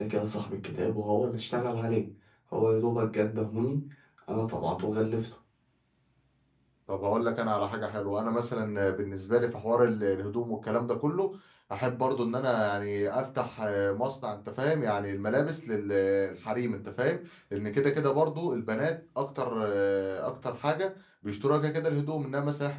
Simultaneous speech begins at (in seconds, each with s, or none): none